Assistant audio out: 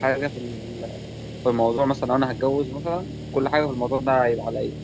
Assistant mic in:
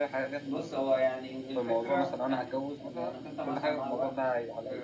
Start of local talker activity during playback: 0 s

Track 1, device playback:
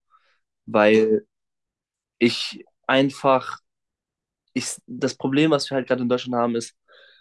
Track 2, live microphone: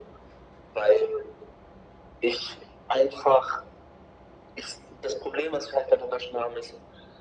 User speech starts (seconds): none

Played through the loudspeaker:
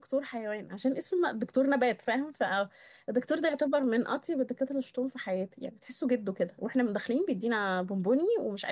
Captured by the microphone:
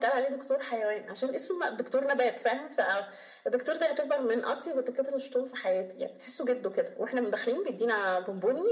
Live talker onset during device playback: none

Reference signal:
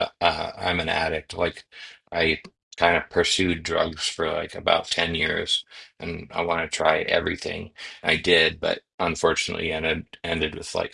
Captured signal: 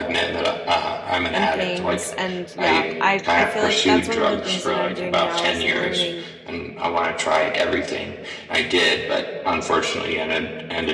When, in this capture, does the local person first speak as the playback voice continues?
1 s

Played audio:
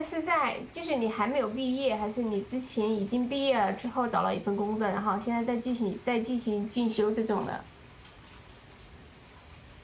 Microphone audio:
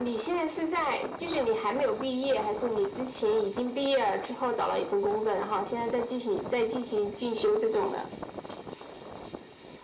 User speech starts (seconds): none

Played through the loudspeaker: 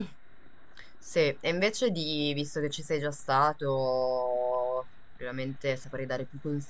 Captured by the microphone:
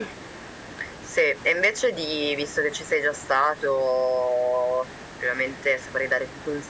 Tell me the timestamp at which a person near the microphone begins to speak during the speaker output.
none

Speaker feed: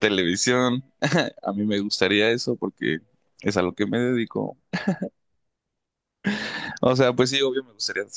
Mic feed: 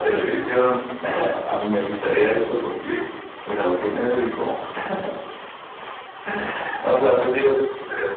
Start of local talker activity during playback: none

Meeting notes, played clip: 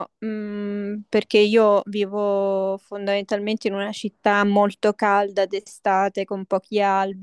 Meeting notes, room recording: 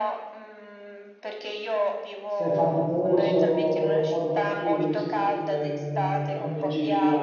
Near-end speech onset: 2 s

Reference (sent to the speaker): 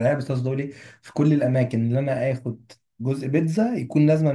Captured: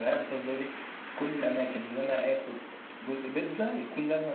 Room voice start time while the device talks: none

